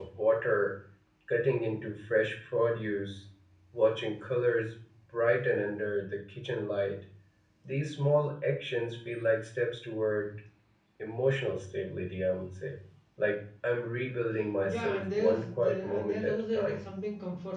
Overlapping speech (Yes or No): Yes